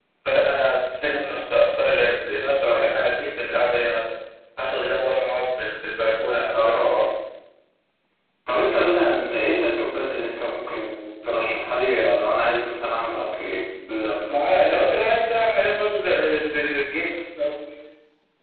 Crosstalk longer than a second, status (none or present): none